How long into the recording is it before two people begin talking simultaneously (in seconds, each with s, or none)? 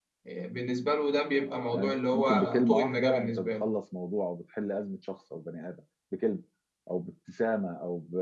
1.7 s